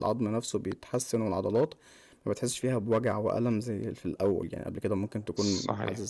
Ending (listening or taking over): listening